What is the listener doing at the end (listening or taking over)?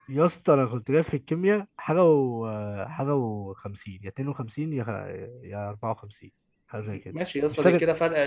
taking over